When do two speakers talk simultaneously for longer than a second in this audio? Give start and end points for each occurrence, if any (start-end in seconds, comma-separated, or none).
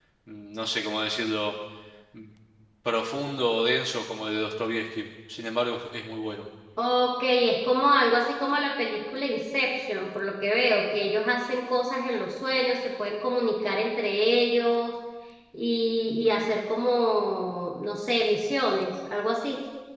none